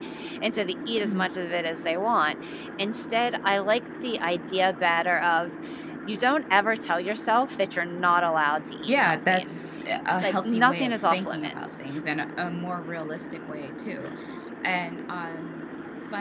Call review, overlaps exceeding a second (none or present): present